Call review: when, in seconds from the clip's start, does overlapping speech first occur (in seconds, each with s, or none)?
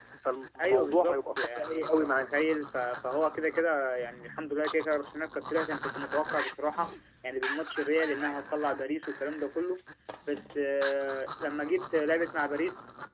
0.6 s